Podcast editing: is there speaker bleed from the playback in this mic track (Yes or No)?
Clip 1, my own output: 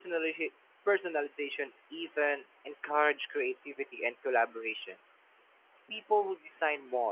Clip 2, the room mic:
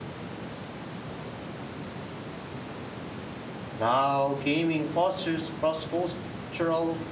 No